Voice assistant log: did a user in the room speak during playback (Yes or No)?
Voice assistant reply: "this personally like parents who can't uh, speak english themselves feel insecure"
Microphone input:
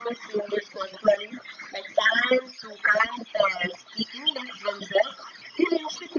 No